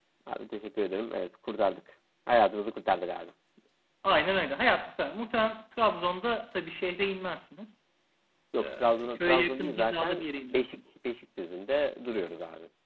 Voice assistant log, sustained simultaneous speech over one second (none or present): present